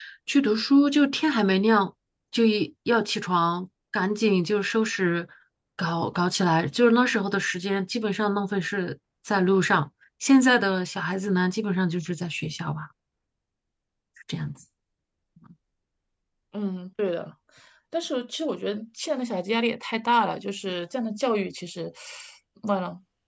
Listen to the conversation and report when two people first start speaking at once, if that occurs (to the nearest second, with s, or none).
none